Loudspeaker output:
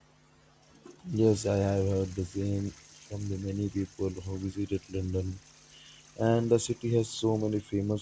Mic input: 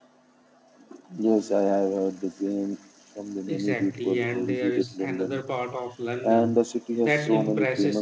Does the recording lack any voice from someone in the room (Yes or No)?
No